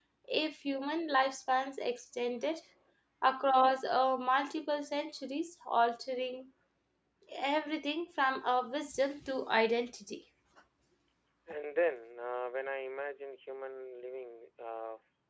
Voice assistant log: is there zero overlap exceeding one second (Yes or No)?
Yes